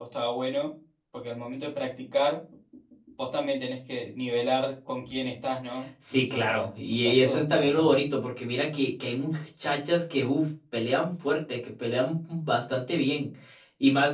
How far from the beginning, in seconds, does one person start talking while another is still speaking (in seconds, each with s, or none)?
6.1 s